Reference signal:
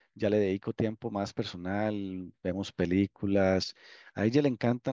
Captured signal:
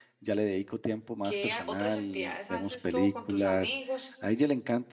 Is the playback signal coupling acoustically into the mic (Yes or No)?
Yes